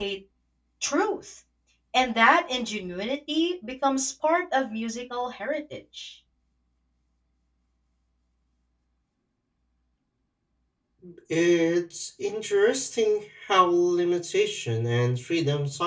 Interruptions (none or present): none